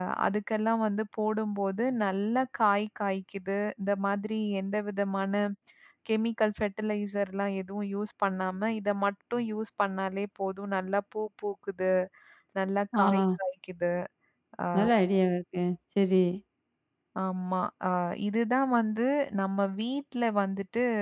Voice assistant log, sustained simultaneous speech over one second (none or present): none